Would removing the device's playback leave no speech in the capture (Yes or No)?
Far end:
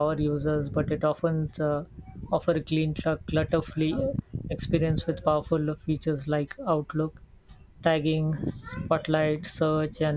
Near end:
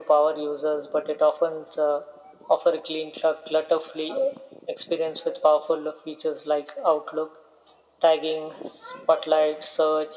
Yes